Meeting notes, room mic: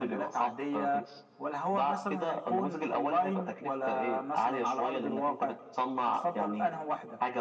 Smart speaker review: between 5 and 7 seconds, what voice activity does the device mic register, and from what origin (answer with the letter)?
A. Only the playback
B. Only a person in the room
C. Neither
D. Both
A